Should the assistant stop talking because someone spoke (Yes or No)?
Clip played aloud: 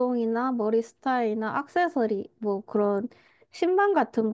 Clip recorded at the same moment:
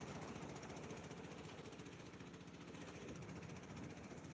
No